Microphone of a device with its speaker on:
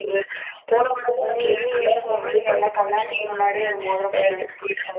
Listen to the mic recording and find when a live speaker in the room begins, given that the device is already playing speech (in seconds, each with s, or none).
1.2 s